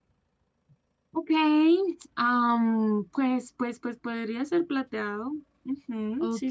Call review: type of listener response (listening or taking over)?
taking over